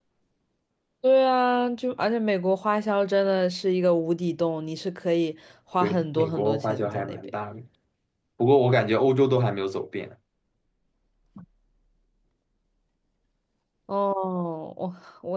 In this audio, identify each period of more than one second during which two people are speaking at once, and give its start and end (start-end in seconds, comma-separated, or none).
5.8-7.3